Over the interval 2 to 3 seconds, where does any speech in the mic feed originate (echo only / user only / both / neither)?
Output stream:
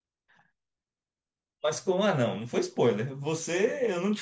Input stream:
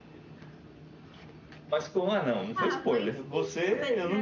both